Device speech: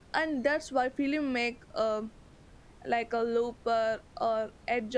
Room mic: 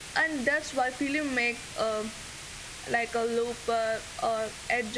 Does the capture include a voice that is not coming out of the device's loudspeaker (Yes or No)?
No